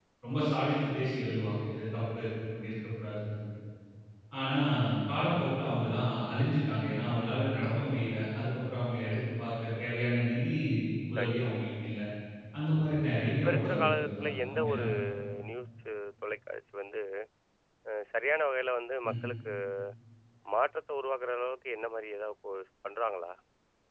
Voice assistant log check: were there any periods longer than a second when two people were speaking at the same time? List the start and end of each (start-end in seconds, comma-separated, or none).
13.3-14.9